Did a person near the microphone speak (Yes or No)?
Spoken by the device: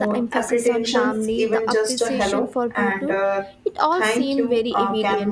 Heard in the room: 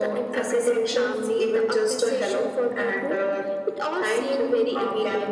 No